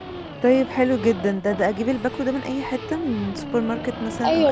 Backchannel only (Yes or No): No